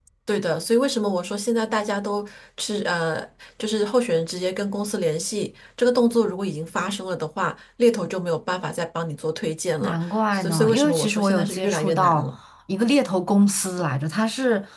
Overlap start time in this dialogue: 9.8 s

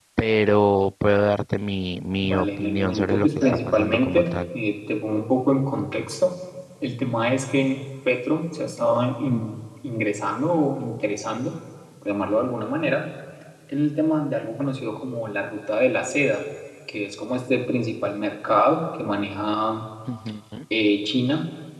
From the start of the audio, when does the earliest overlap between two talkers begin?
2.2 s

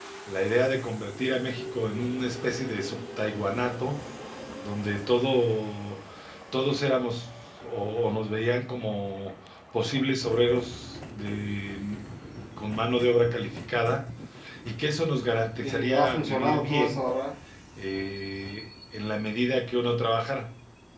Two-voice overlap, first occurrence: 15.6 s

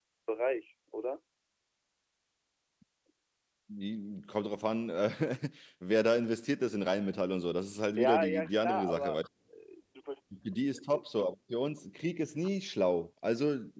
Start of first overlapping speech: 8.0 s

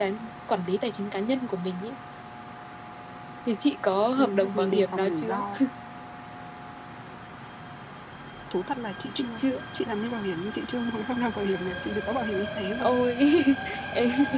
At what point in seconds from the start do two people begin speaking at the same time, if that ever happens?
4.2 s

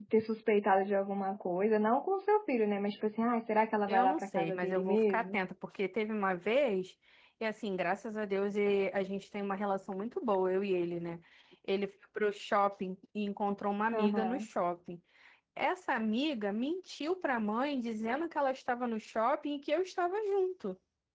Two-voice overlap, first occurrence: 3.9 s

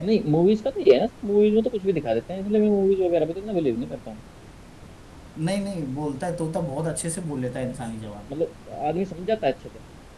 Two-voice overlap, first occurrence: none

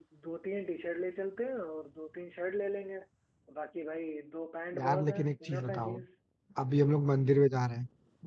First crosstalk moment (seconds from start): 4.7 s

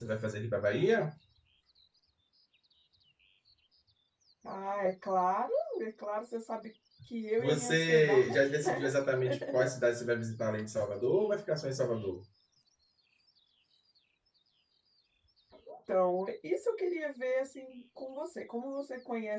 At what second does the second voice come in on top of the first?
7.4 s

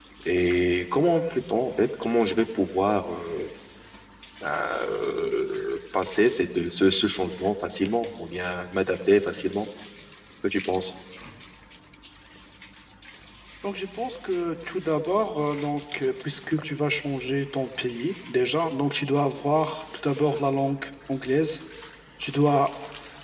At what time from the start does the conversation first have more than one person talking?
none

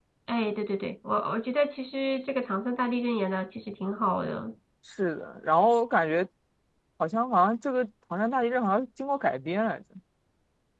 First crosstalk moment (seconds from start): none

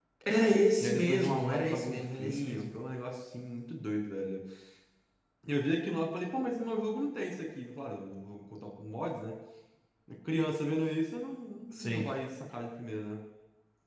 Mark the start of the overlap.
0.8 s

